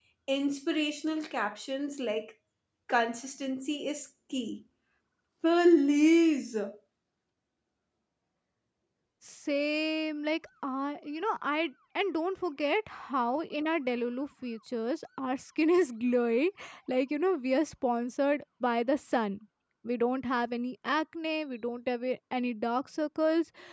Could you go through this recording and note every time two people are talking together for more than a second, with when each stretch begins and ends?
none

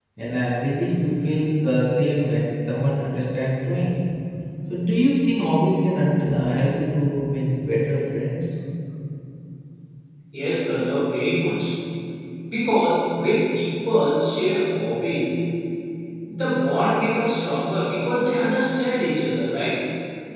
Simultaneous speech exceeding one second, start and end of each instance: none

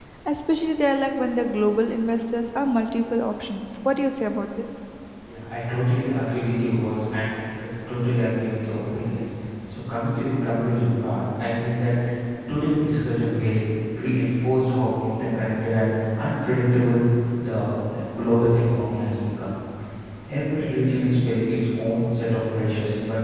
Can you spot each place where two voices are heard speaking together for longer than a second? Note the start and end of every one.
none

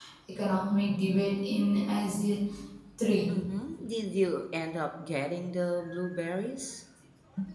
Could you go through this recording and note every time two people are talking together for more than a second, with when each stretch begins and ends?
none

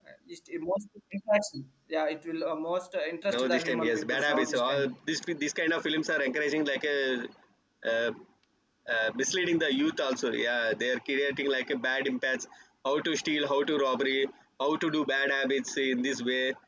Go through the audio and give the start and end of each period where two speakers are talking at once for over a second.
3.3-4.9

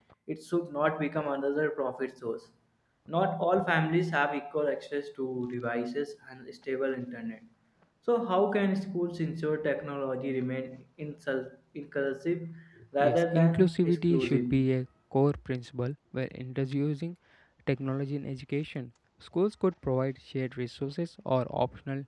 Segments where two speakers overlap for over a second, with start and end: 13.0-14.5

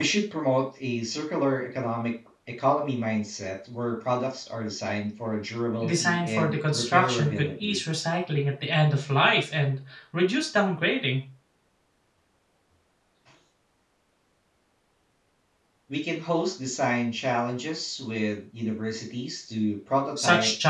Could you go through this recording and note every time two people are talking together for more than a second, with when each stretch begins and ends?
5.8-7.8

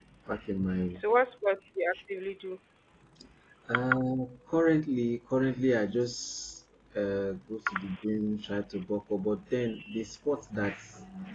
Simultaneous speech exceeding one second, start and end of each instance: none

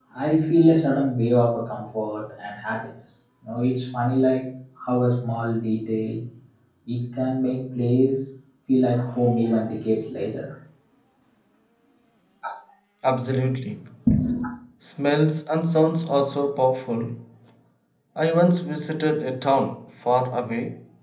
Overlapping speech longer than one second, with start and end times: none

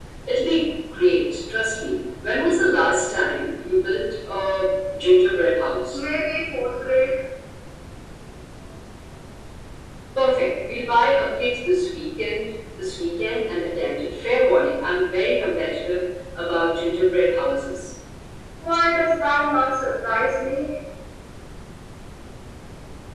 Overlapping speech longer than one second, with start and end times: none

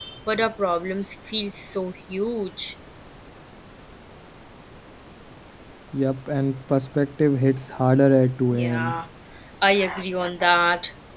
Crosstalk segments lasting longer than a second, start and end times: none

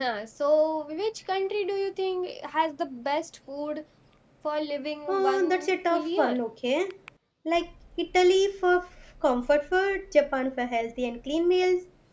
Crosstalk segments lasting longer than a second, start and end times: 5.1-6.4

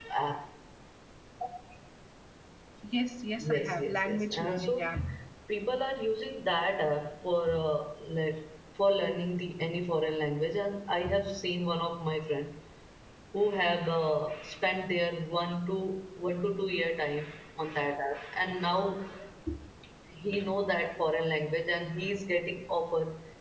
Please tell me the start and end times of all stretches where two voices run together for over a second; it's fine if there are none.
3.5-4.9

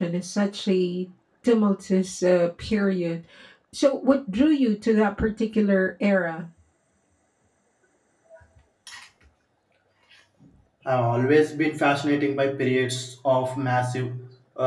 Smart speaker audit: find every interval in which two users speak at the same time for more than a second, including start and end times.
none

